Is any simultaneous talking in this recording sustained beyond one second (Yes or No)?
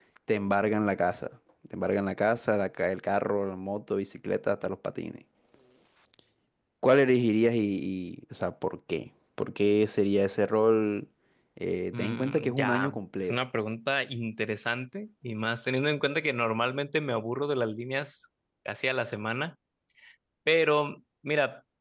Yes